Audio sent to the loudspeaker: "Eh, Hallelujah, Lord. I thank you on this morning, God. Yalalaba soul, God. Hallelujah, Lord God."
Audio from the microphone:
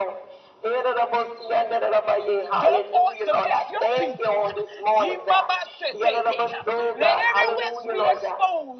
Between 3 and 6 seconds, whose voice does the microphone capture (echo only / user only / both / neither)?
both